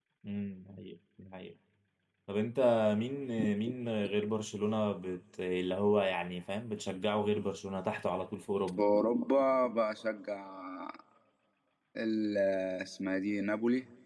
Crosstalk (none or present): none